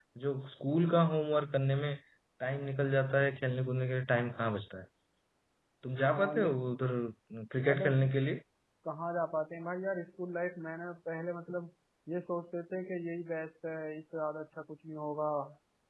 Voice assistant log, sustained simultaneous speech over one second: none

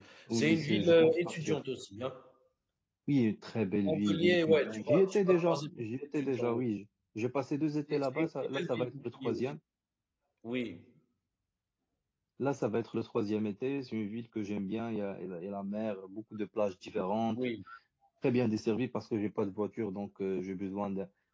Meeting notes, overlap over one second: present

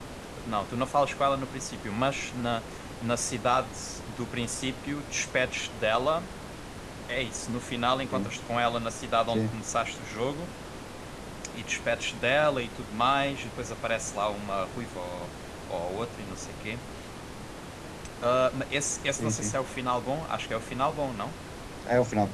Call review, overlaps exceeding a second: none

